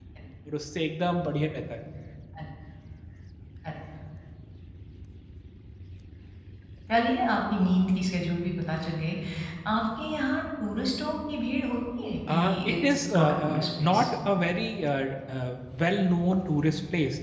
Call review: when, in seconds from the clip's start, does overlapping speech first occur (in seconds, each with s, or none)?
12.3 s